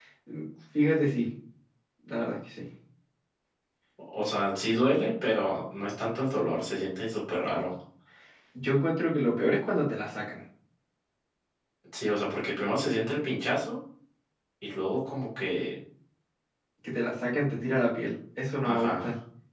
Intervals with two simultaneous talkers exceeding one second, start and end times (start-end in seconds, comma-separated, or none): none